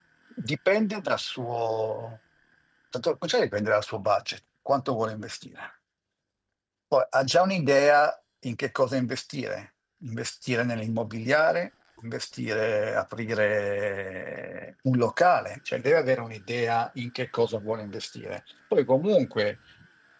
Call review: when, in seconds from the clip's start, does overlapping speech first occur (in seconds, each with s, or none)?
none